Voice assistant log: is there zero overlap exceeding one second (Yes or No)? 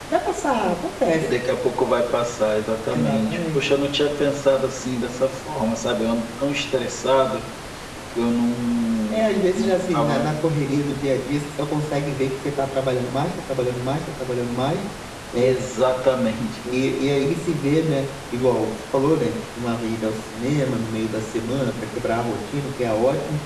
No